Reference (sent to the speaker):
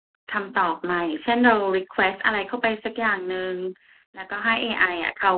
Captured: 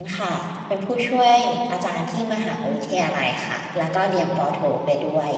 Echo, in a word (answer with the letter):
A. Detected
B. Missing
B